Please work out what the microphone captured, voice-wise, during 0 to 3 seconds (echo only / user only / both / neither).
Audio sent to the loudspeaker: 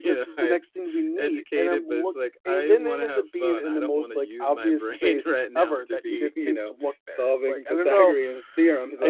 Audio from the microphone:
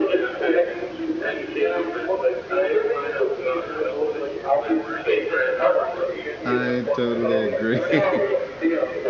echo only